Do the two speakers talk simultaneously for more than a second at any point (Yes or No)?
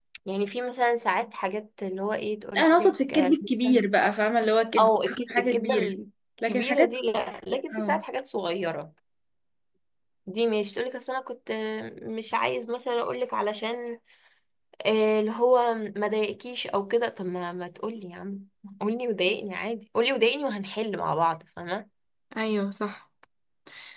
Yes